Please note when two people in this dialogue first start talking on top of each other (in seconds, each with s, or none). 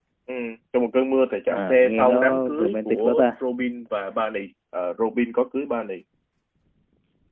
1.6 s